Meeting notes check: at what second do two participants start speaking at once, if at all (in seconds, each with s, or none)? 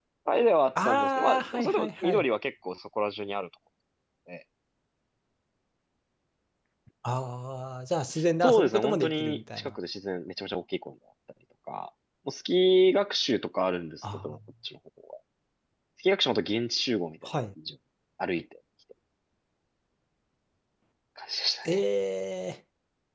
0.8 s